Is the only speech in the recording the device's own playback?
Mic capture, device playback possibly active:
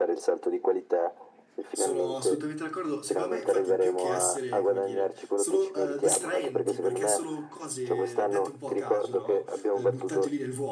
No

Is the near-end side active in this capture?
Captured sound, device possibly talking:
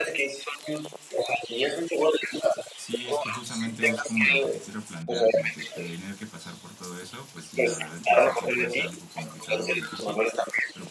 Yes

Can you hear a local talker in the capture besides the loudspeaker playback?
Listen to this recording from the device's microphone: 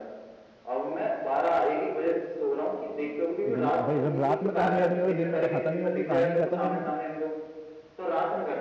Yes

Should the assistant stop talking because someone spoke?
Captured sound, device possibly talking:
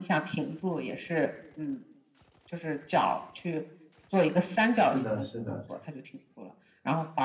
Yes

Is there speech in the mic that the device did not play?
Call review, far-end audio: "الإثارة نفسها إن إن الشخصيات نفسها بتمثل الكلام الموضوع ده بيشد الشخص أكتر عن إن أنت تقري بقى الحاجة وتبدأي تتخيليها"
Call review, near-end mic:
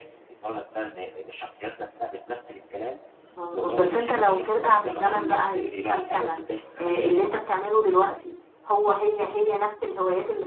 Yes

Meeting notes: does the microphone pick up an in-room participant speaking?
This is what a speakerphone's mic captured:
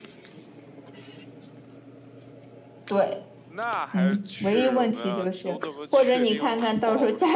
Yes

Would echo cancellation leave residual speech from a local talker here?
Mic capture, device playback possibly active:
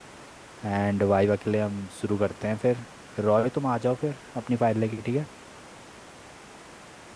Yes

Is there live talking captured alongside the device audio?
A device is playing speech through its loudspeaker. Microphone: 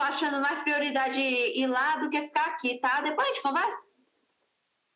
No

